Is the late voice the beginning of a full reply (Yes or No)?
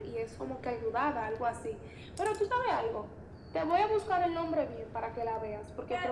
Yes